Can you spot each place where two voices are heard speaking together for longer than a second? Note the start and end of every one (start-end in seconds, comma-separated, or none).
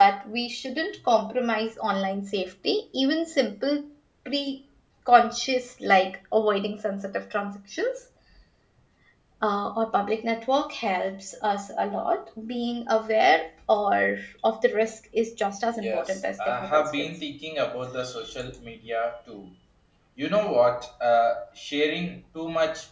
15.7-17.1